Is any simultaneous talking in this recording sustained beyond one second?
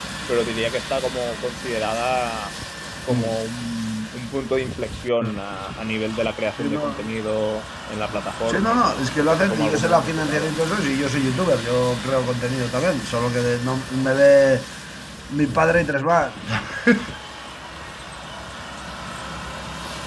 Yes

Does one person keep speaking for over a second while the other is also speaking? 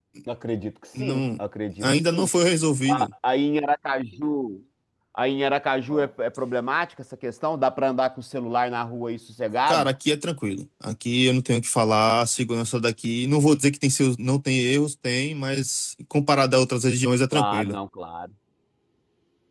No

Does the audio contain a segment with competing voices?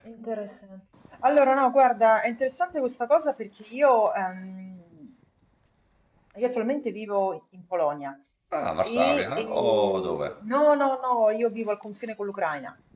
Yes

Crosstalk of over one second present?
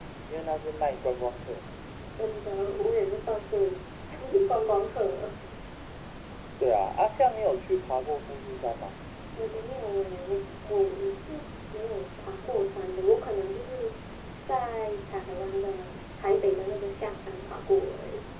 No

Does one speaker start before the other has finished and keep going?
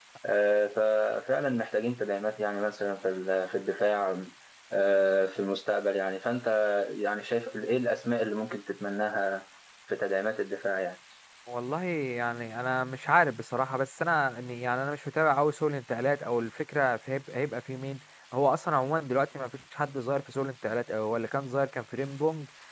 No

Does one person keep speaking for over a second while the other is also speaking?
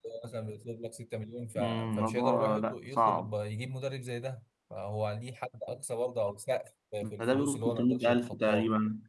Yes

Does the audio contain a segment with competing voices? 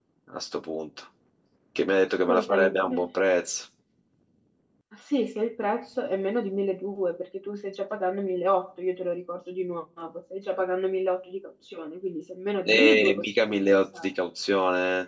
Yes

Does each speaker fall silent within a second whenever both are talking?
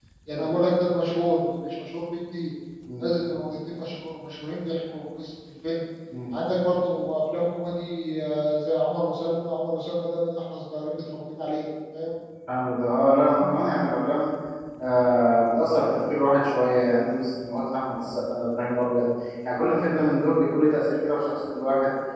Yes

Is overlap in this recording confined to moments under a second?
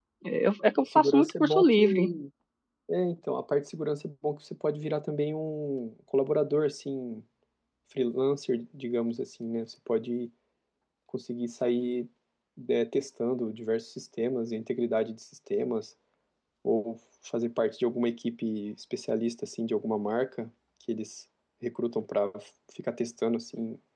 No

